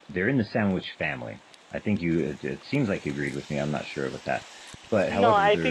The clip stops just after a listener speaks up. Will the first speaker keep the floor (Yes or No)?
No